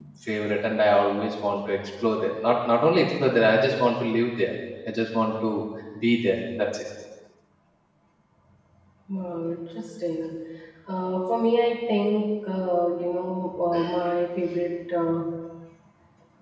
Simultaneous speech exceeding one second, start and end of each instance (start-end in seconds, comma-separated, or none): none